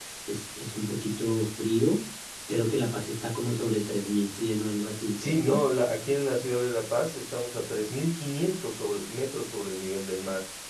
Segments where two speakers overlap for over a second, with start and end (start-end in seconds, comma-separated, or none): none